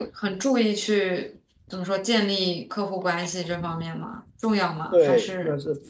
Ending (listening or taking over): taking over